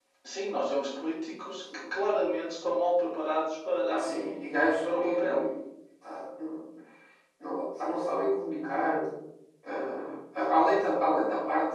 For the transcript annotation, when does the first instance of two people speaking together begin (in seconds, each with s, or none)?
3.9 s